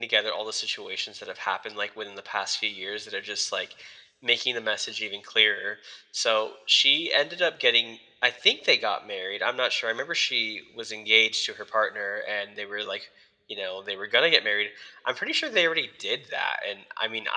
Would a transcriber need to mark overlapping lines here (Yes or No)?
No